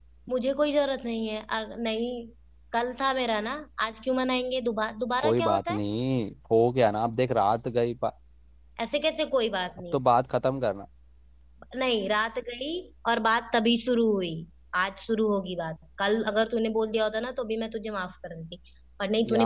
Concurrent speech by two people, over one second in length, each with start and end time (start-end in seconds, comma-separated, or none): none